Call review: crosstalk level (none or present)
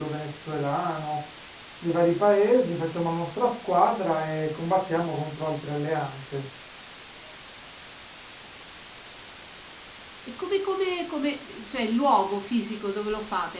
none